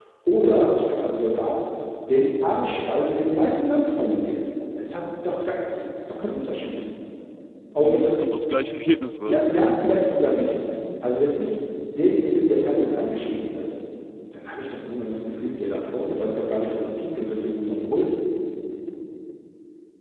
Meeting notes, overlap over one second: none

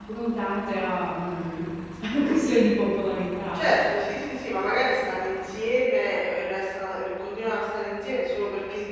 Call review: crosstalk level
none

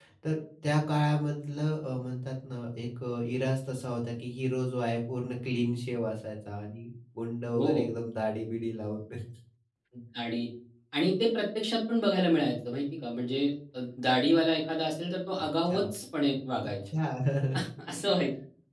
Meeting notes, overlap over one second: none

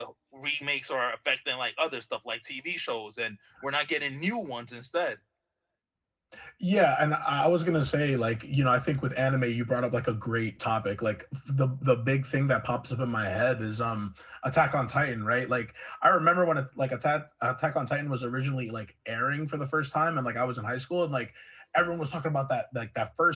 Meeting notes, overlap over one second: none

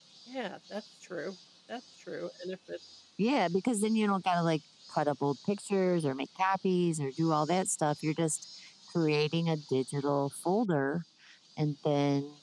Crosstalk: none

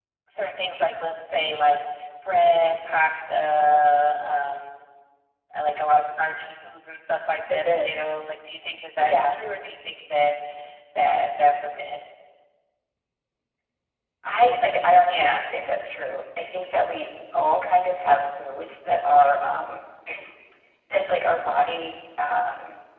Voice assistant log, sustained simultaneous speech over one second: none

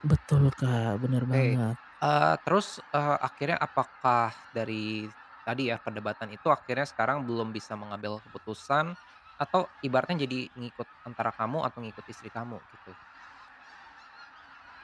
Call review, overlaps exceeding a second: none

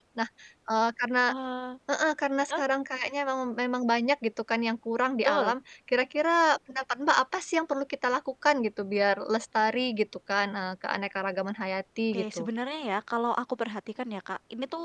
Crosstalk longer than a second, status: none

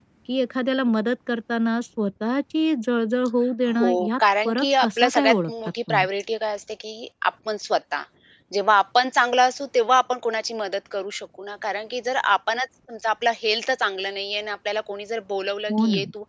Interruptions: present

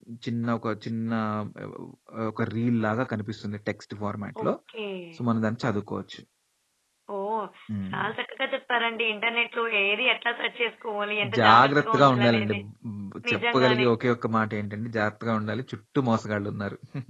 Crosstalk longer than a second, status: present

